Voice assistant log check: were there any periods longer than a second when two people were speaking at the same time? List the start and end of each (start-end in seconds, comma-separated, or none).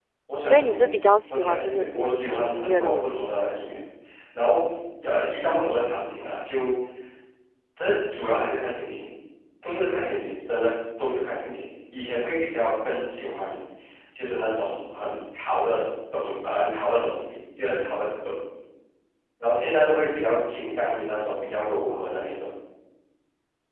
1.3-3.2